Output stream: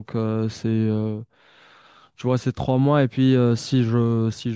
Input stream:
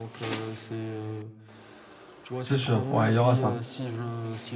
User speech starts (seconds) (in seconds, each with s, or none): 2.4 s